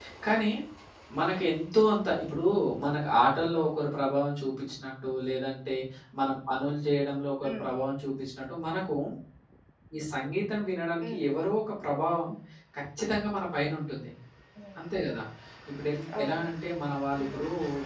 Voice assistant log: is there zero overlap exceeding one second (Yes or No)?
Yes